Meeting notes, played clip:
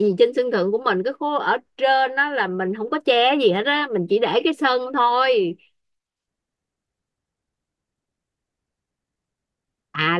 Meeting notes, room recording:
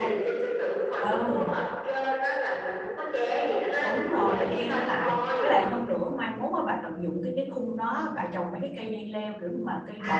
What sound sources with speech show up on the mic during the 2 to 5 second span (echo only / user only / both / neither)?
both